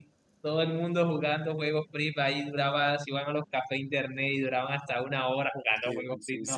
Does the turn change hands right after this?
Yes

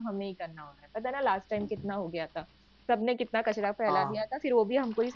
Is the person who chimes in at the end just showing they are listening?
Yes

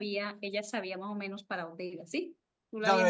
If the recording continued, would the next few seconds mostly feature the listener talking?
Yes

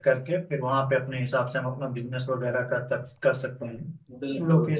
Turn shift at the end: No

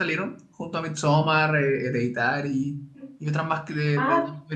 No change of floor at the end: No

